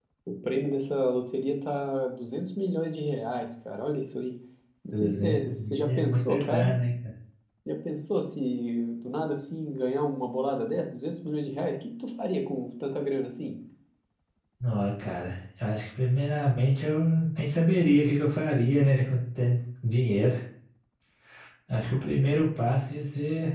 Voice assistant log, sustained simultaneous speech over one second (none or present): present